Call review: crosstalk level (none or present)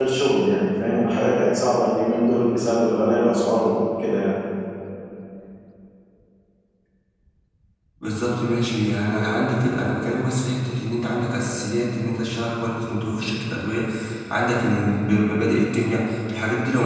none